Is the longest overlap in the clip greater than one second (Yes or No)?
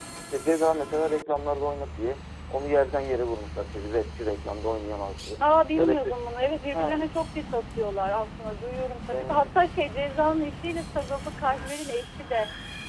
No